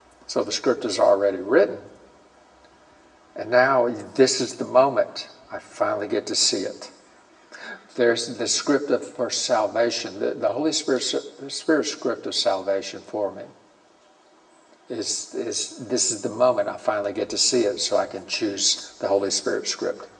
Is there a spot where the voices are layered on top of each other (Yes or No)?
No